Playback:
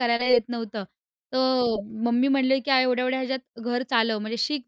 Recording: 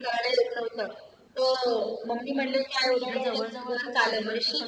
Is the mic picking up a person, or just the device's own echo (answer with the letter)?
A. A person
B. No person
A